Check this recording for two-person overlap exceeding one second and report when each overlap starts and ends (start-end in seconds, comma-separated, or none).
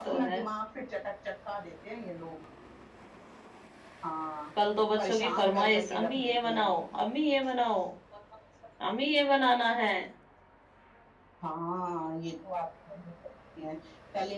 5.0-6.7